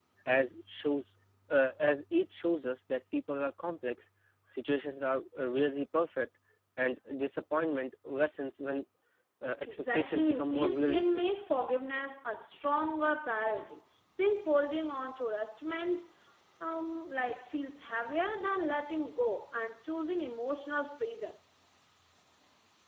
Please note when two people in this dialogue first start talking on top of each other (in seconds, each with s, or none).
9.7 s